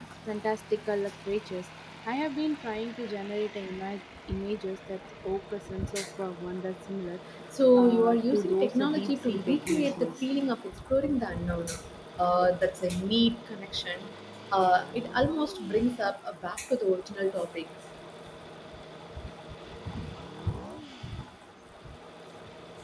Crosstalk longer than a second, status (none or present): present